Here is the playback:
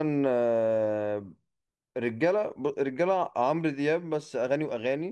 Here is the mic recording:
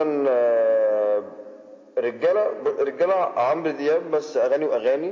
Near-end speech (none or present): none